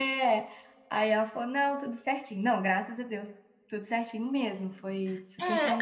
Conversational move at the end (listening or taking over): taking over